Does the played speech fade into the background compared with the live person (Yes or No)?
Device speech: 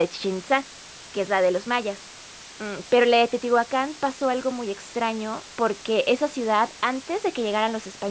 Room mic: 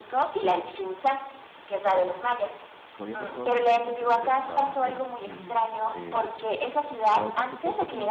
No